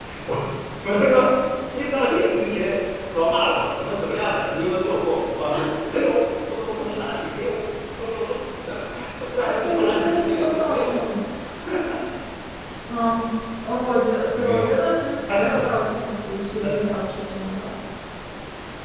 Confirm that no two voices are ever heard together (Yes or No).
No